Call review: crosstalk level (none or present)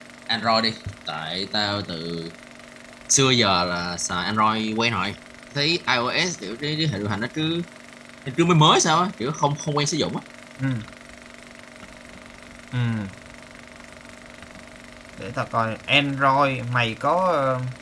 none